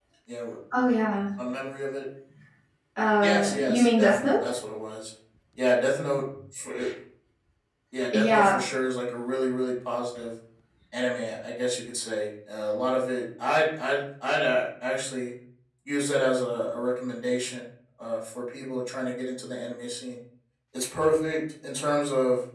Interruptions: present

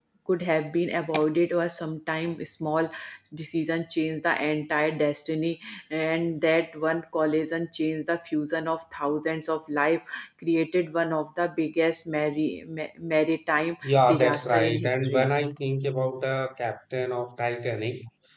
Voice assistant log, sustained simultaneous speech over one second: present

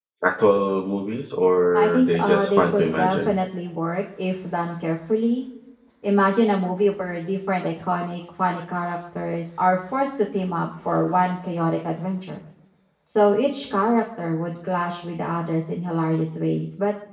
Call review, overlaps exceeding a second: present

